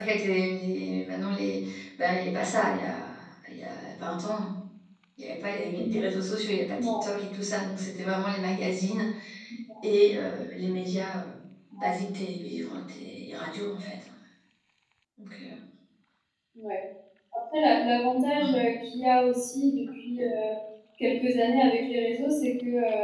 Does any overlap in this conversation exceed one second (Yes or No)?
No